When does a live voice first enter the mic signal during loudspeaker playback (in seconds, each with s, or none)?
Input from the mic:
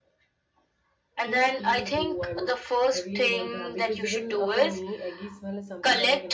1.3 s